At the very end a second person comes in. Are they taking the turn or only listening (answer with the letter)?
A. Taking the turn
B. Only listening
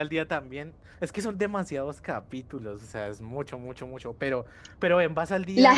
A